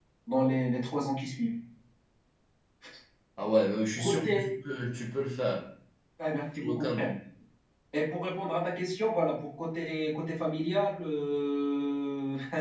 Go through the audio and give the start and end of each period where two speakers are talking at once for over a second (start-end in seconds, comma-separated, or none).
none